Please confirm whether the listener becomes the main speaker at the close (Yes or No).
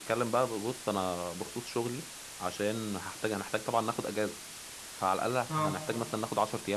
No